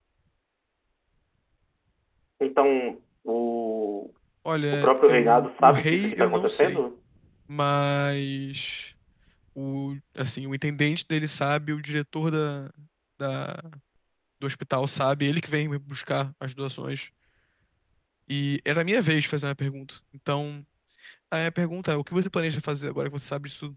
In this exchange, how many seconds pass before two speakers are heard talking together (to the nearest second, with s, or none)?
5 s